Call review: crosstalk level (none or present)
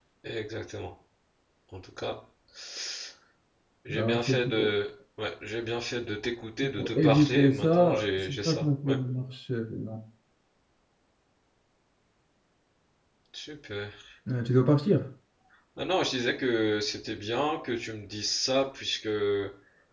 present